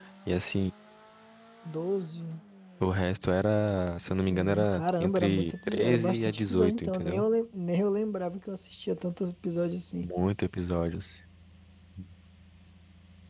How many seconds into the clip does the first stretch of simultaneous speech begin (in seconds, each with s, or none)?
4.3 s